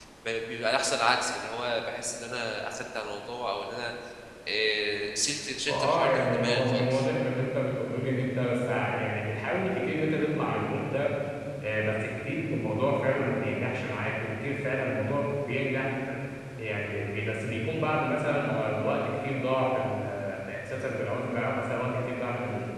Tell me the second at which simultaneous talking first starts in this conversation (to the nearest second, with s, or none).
6 s